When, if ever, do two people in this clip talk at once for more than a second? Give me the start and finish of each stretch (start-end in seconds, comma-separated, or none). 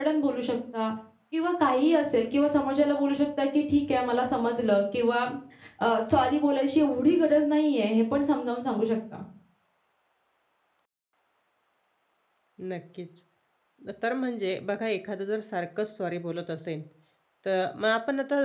none